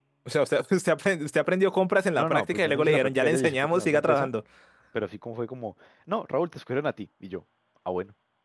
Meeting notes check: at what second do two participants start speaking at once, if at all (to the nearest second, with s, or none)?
2 s